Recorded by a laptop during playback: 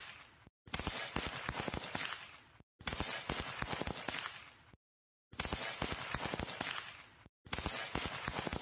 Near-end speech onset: none

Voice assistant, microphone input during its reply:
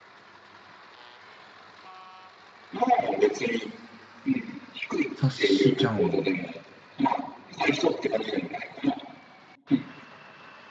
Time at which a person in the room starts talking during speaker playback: 5.1 s

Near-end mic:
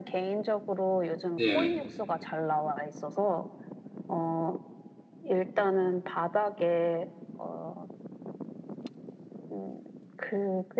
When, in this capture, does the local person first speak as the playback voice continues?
1.4 s

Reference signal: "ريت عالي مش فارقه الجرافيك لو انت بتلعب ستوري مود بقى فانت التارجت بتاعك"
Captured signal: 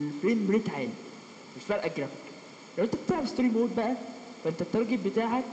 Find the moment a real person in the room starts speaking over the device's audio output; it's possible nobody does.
none

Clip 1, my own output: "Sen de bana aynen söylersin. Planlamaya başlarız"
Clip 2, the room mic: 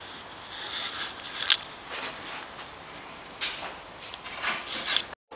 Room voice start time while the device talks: none

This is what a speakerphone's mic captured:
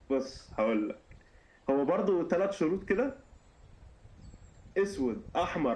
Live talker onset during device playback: none

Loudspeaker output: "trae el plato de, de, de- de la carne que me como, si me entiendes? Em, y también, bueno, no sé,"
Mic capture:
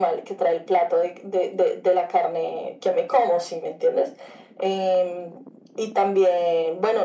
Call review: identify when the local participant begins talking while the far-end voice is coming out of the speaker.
none

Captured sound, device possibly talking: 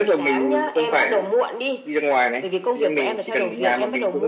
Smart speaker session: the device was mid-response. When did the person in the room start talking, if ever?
none

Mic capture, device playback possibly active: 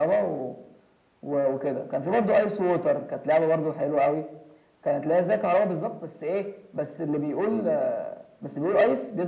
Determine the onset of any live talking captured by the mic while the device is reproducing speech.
none

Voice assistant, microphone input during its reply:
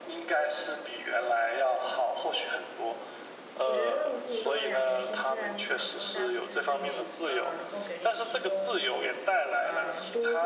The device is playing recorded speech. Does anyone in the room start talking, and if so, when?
3.6 s

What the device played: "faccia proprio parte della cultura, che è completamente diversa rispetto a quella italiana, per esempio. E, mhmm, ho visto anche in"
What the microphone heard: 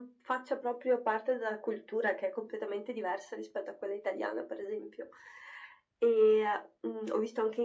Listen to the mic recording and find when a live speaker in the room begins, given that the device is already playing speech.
none

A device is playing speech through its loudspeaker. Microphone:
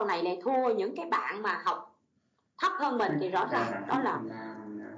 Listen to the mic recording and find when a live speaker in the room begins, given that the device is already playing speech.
3.0 s

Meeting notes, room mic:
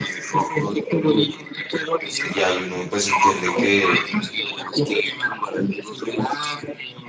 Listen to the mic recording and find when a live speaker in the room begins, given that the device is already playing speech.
2.3 s

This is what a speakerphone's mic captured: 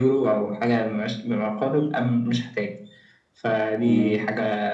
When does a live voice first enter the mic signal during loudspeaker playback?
3.8 s

